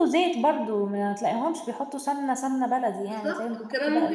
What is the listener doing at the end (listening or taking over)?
taking over